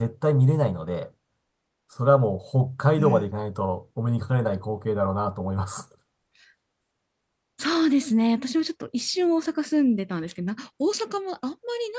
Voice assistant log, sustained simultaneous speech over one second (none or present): none